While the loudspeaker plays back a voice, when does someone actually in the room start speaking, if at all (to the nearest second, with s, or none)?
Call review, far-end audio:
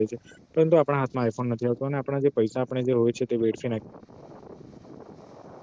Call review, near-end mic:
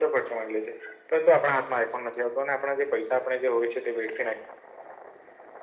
none